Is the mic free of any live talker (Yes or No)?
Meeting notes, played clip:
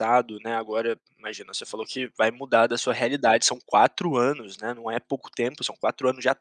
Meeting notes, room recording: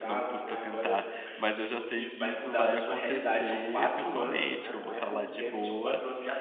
No